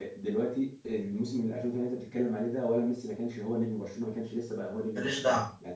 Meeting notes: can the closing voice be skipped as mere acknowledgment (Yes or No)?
Yes